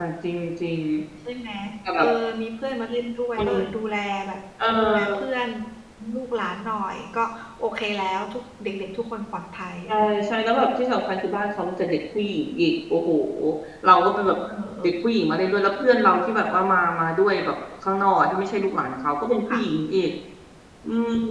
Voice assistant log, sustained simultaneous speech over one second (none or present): none